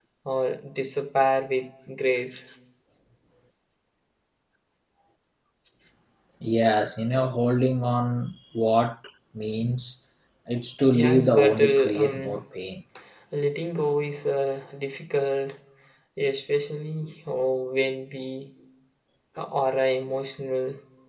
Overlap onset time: 11 s

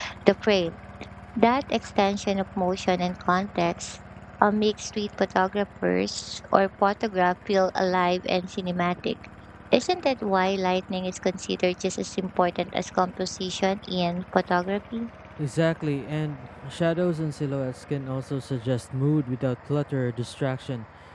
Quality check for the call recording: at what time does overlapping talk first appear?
none

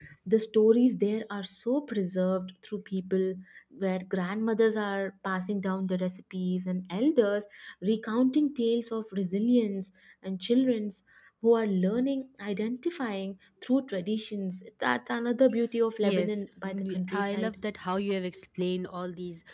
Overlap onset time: 16 s

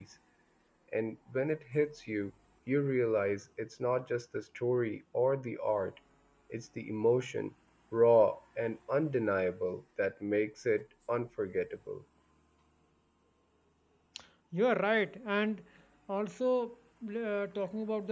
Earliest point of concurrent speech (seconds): none

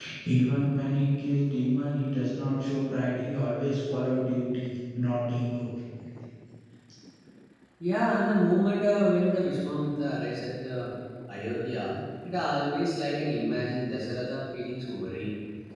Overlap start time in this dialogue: none

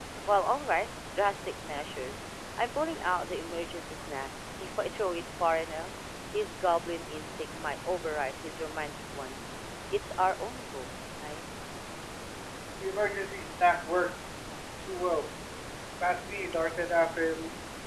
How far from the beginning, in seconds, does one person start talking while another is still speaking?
none

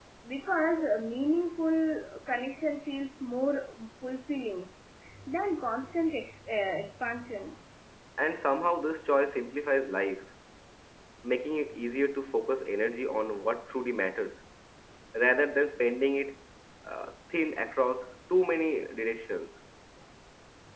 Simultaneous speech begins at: none

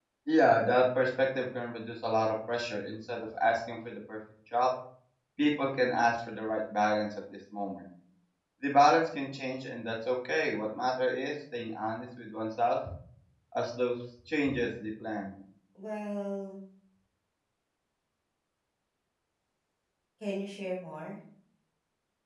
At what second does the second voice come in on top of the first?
none

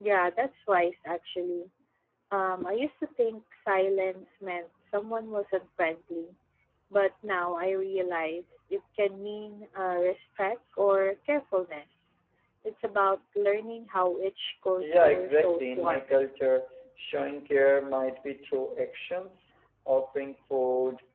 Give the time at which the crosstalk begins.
15 s

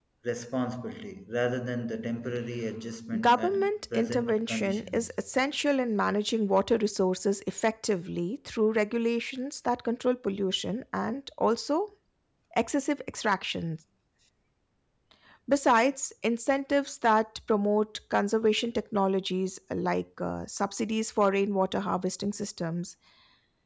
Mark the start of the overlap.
3 s

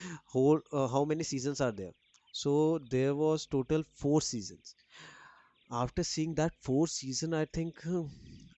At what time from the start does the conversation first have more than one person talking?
none

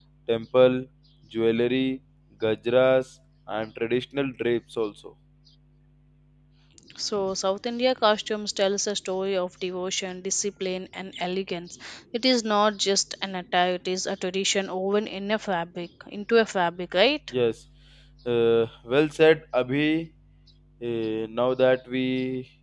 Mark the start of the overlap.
none

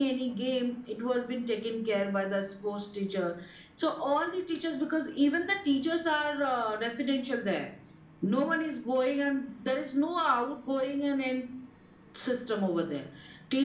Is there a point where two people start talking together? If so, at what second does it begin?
none

